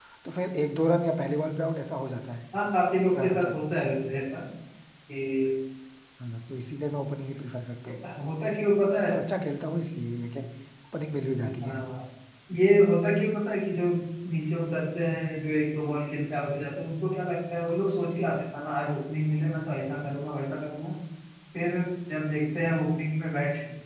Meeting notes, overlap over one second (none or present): none